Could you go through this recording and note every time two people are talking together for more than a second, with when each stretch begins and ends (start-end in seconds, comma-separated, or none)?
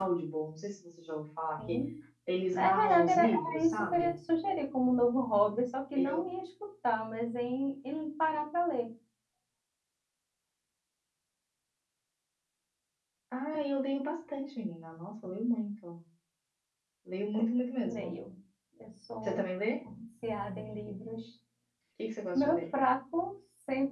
2.5-4.1